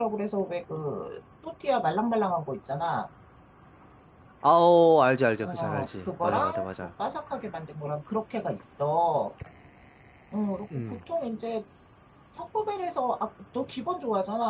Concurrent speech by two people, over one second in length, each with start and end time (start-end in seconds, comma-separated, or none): 5.4-6.9